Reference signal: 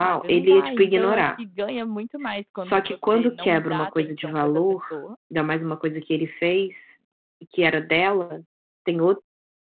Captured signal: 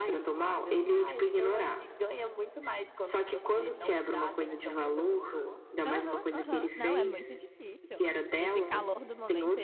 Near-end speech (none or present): present